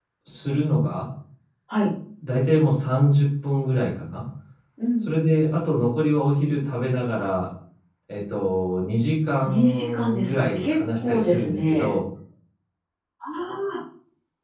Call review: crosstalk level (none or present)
present